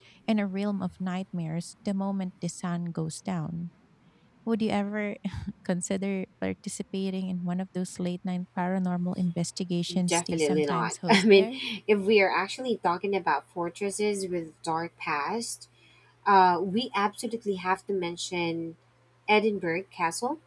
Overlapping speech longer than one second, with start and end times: 10.1-11.5

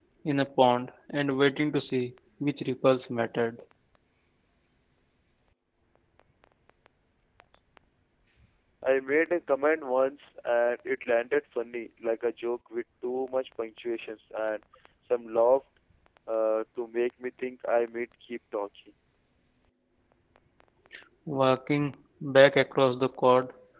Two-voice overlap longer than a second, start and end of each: none

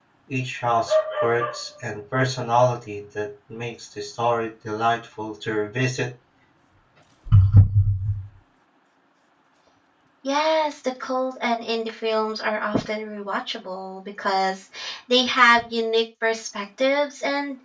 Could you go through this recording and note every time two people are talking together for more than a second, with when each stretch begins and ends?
none

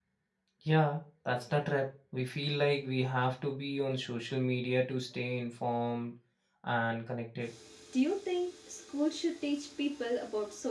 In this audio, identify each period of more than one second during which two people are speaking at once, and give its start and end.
none

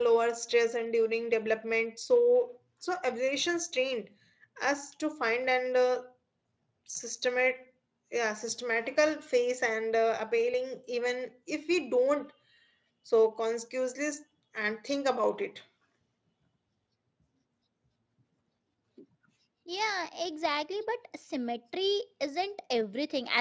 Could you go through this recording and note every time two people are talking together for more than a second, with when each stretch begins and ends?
none

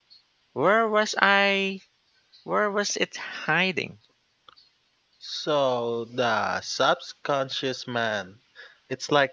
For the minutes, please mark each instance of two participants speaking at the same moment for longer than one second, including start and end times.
none

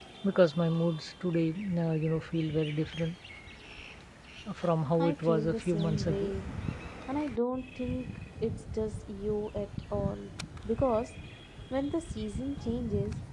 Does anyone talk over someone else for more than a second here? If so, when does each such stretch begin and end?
5.0-6.3

